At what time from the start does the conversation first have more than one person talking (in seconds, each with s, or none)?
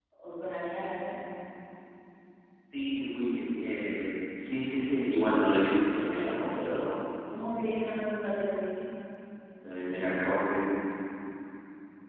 none